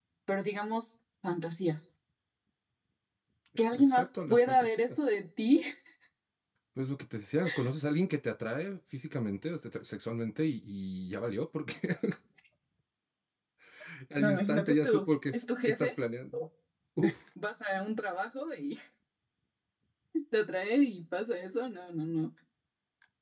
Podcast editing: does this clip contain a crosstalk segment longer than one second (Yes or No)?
Yes